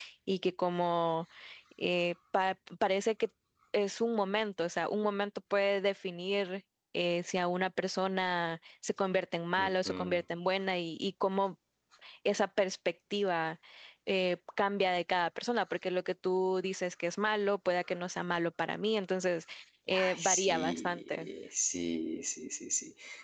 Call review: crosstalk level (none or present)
present